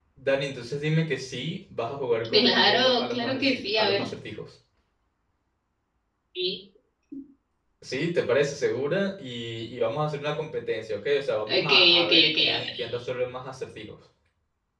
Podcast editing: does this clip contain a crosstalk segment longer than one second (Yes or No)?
Yes